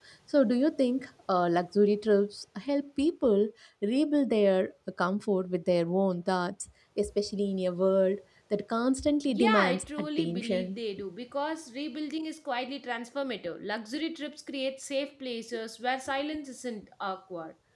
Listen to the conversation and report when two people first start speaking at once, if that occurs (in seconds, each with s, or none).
9.3 s